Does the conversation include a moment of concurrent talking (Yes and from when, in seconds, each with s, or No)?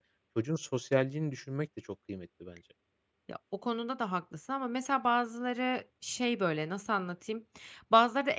No